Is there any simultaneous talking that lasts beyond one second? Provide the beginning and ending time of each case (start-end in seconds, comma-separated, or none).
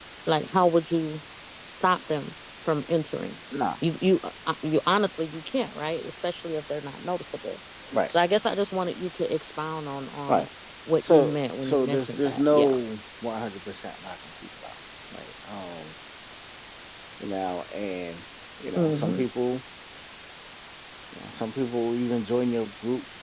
11.0-12.7